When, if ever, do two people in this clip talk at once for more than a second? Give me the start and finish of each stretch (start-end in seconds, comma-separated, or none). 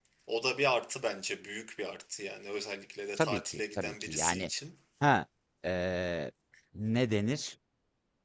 3.2-4.5